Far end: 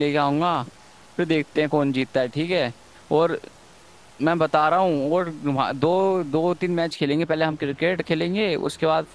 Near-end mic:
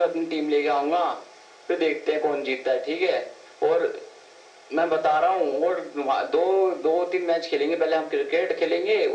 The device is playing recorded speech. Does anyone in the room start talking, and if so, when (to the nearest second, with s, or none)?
none